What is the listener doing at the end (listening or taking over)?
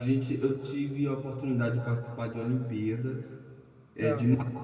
listening